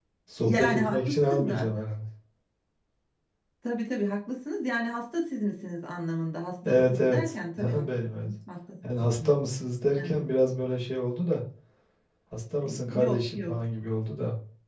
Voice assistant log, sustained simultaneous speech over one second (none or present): present